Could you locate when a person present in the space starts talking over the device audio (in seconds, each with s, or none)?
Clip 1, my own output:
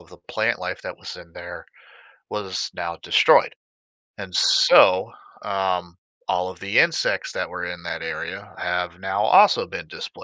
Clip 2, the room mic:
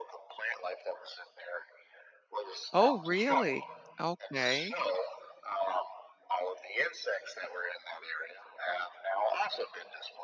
2.7 s